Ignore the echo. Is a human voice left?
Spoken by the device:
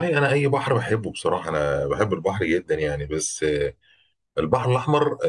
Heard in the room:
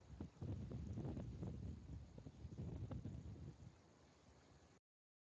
No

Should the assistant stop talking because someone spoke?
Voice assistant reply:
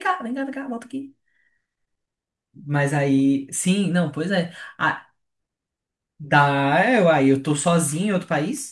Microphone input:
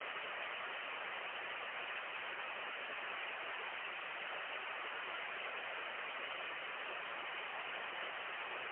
No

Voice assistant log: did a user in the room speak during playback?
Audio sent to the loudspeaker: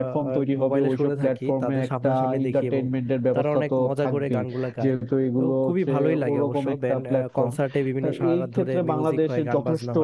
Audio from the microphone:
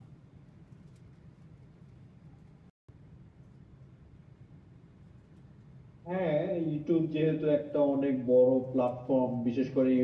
Yes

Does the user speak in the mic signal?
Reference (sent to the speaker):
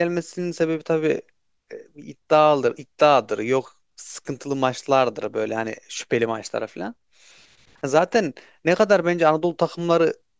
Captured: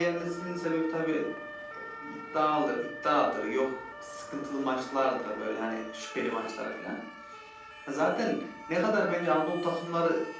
No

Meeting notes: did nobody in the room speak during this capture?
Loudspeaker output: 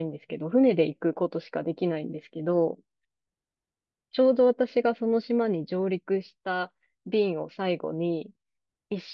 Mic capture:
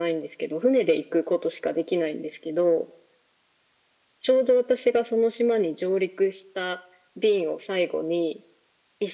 Yes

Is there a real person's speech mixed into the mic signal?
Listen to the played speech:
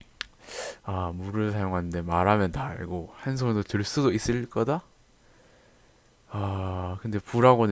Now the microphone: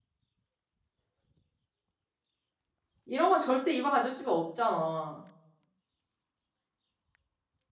Yes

